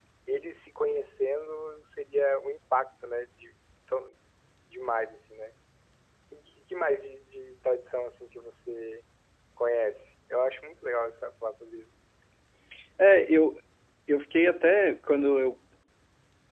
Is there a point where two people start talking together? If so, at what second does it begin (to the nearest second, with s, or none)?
none